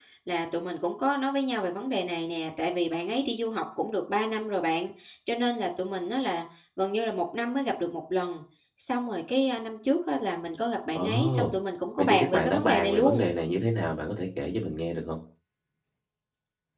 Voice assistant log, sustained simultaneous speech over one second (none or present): present